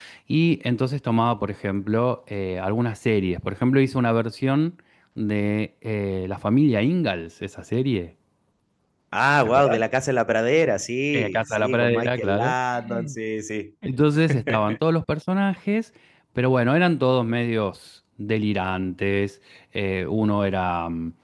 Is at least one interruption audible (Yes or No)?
Yes